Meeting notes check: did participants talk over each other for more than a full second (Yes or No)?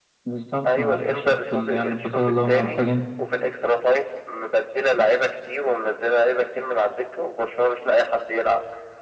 Yes